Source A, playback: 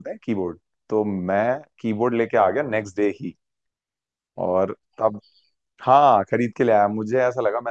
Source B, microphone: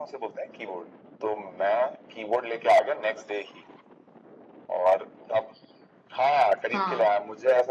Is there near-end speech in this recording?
Yes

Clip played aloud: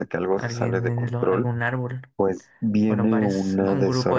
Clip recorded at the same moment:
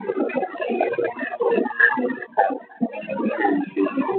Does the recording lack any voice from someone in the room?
Yes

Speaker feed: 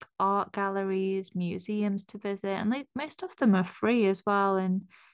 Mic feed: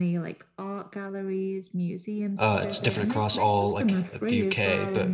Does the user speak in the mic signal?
Yes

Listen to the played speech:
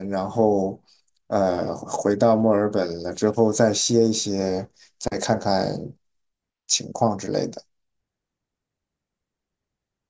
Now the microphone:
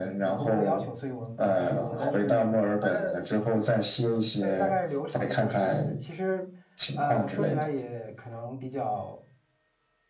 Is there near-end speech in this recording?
Yes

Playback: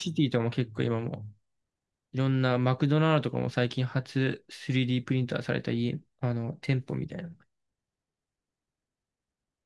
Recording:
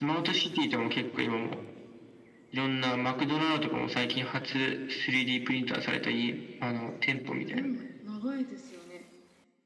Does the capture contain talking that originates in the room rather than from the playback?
Yes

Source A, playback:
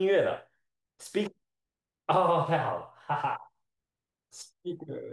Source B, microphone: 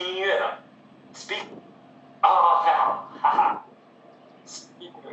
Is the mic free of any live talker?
Yes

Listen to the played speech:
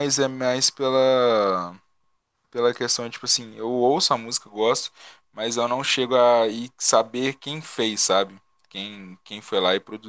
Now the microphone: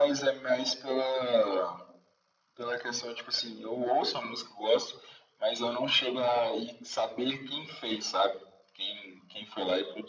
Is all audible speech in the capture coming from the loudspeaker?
Yes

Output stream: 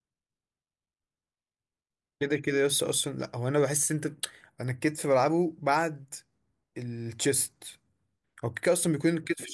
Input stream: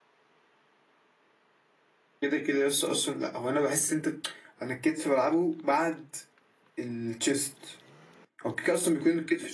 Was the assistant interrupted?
No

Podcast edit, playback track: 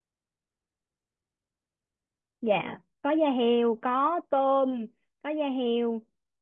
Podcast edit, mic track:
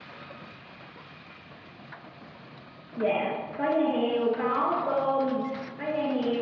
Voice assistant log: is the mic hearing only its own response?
Yes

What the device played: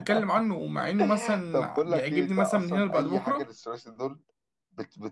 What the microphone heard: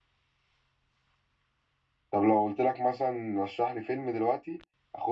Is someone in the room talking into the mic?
Yes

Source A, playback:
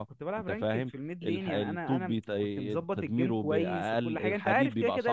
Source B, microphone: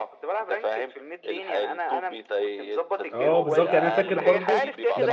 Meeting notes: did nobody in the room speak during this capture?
No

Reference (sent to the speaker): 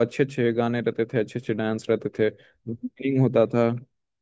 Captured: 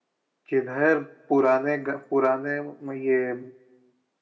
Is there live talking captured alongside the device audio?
Yes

